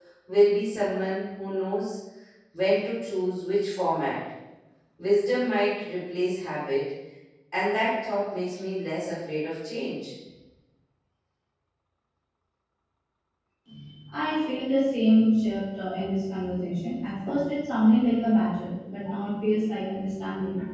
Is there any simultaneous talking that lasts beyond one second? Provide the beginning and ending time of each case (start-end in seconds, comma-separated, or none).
none